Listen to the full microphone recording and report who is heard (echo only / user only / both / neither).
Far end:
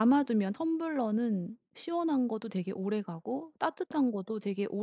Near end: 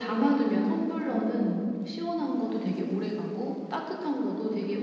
echo only